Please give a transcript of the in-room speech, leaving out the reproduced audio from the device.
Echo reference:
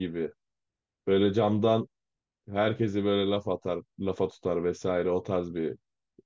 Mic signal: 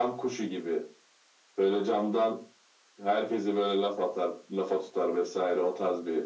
none

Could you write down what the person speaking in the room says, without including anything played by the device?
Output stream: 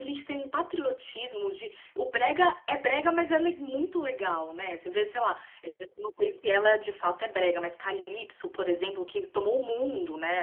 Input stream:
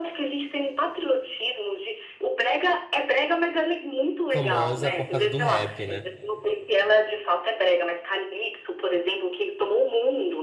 famosa por causa do rap, né?

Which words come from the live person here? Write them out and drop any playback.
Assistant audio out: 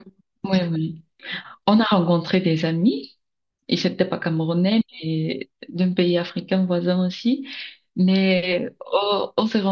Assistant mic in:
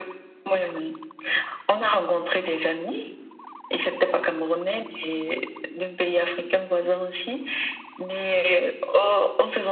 none

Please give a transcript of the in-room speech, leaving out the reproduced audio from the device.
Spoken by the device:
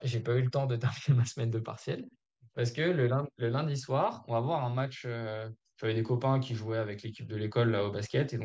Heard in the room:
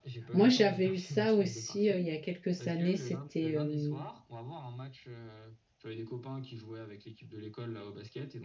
Moi, j'avais eu ça aussi euh, il y a quelques années. C'était euh,

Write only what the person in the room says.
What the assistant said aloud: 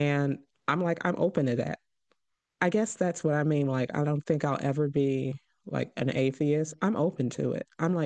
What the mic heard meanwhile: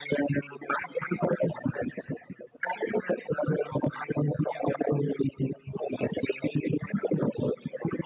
none

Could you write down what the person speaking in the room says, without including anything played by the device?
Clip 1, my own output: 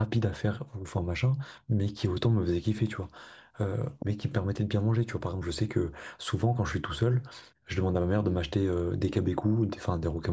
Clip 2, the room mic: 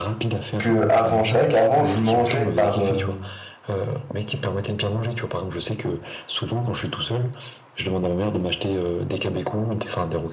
qu'avant. C'est vrai qu'avant, je mangeais par... euh,

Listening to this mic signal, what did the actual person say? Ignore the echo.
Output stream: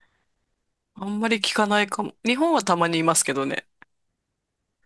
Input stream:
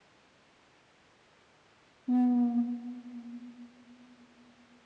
うーん。

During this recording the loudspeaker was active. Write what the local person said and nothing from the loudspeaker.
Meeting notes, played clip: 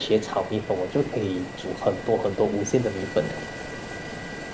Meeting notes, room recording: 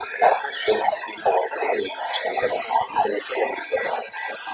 none

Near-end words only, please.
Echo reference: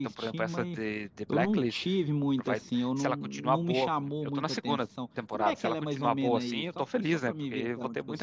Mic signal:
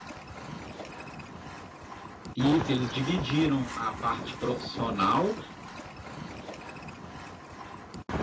isso, eles dividiram a parte profissional

